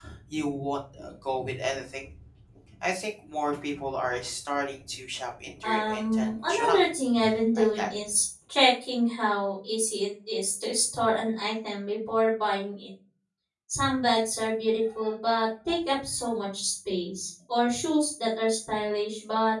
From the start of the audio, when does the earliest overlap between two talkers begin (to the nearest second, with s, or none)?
6 s